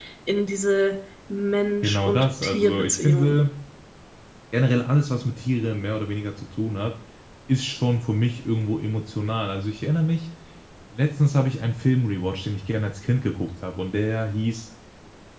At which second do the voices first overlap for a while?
1.8 s

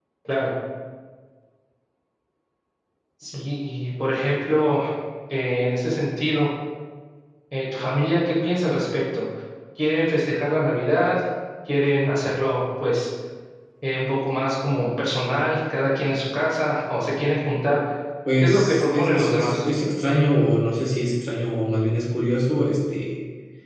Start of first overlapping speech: 18.4 s

